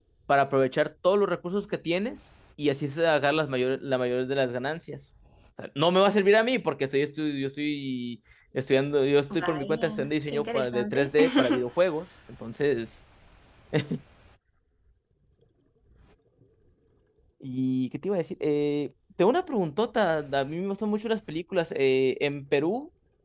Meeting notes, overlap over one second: present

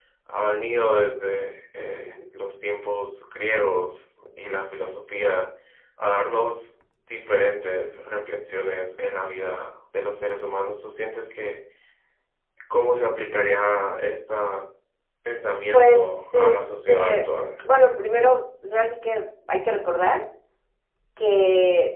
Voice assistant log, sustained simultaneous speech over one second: present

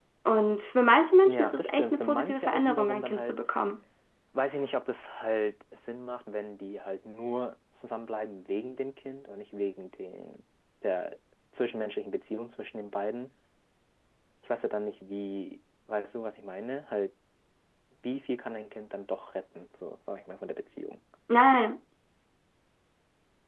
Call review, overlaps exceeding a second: present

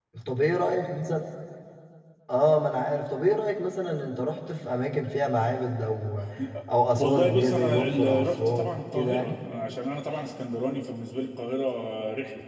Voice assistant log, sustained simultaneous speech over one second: present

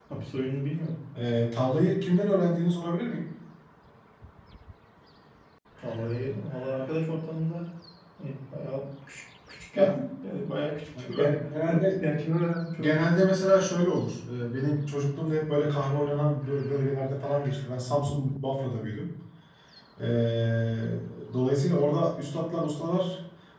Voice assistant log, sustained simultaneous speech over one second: none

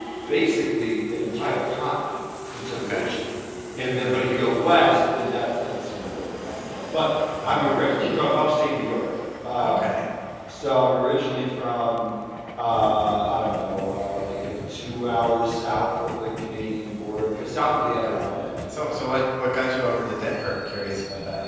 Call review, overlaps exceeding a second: none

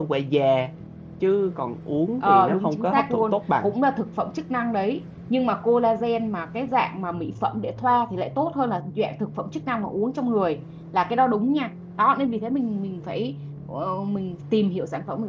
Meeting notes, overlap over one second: present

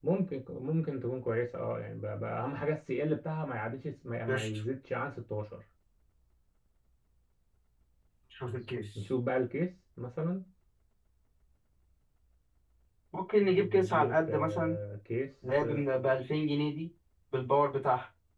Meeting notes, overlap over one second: present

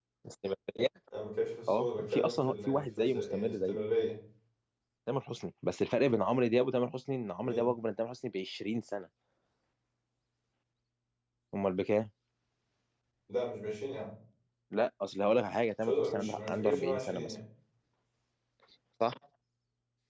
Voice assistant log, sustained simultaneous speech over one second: present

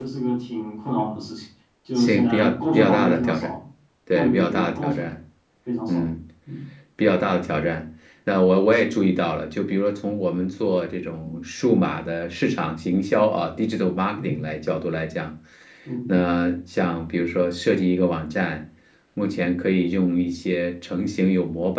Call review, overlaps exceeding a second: present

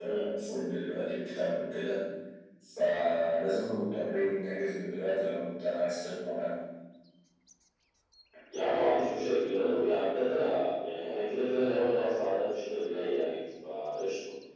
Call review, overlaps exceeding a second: none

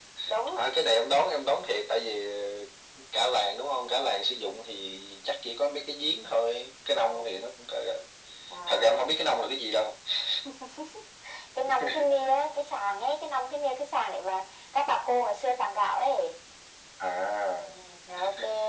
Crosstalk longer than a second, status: none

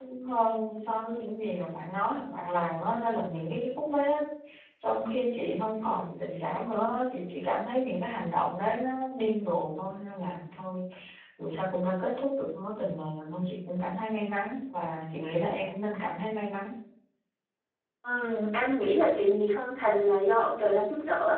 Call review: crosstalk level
none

